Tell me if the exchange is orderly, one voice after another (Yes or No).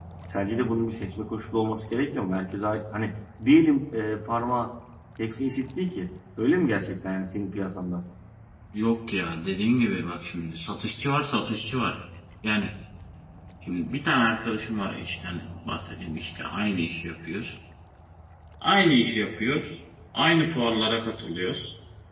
Yes